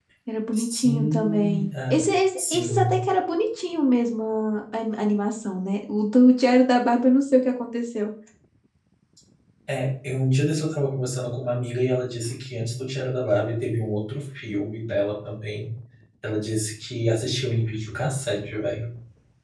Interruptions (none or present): present